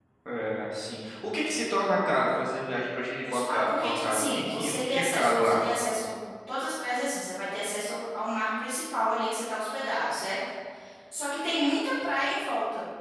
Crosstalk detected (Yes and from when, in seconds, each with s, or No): Yes, from 3.2 s